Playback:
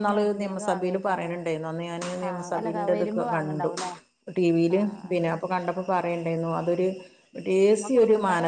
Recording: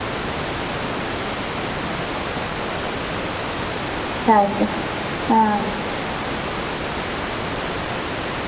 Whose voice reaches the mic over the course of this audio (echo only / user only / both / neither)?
user only